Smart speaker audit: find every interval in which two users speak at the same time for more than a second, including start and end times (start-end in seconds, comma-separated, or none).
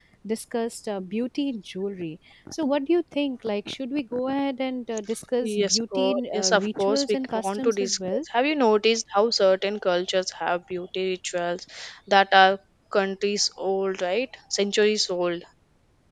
5.4-8.2